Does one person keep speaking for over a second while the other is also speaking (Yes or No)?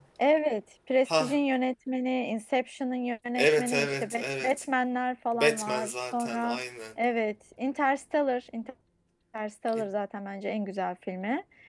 Yes